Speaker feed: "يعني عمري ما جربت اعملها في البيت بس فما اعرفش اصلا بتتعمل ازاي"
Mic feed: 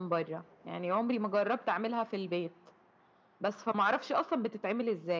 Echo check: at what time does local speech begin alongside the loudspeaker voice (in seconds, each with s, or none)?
none